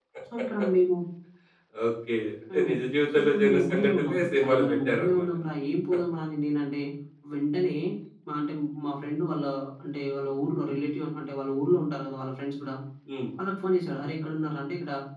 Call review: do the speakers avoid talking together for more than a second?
No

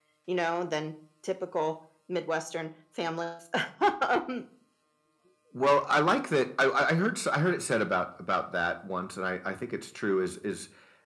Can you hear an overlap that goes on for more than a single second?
No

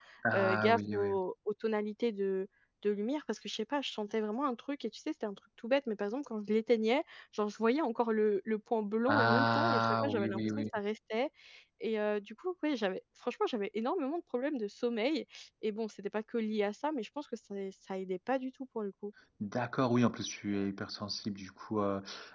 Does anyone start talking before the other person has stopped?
Yes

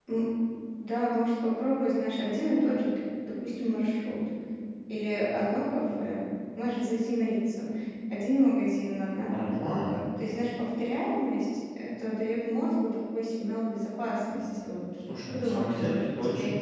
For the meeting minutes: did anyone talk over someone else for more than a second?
Yes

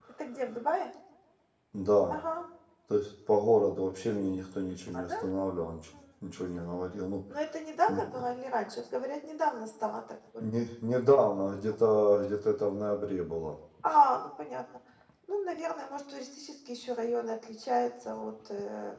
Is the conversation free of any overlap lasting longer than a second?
Yes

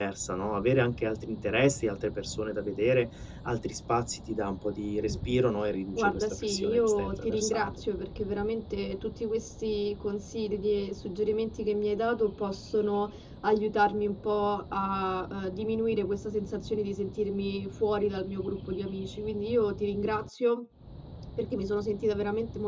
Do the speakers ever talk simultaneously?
Yes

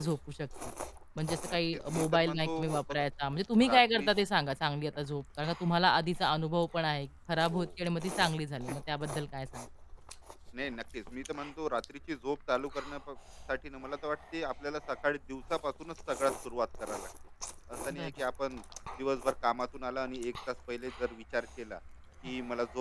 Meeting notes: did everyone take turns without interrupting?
No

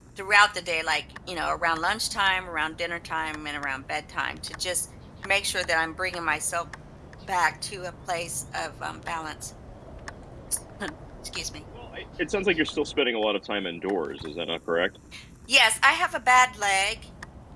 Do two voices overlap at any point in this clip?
No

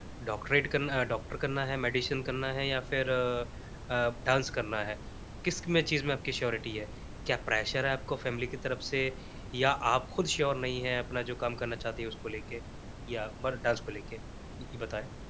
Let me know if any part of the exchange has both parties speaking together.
No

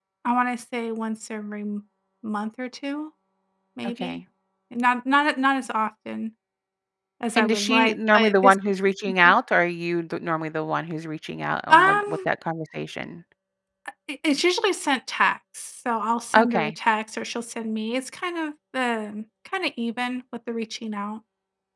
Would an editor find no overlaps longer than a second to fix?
No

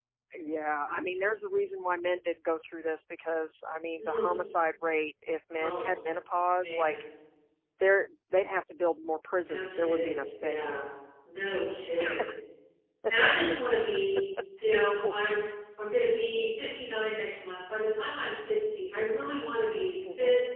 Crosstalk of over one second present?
Yes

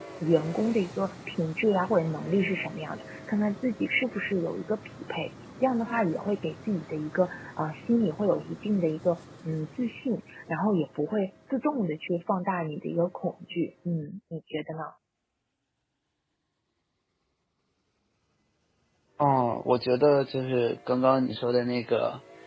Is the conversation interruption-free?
Yes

